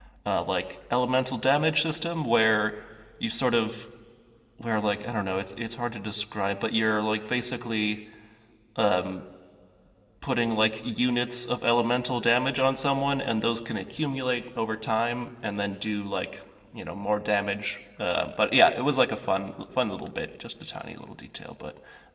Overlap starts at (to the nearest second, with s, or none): none